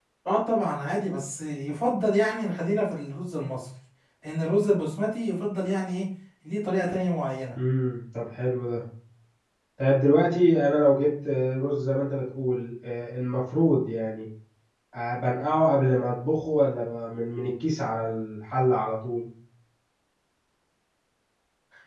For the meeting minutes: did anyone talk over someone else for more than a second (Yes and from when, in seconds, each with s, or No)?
No